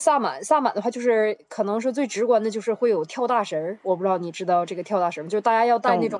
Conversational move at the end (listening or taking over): listening